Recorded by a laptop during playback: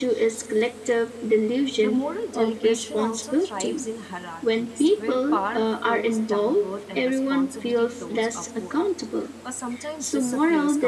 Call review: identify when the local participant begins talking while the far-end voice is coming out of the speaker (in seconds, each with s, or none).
1.8 s